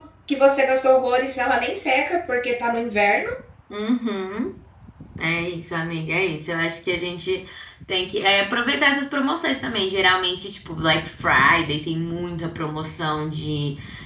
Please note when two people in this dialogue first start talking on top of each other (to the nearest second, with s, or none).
none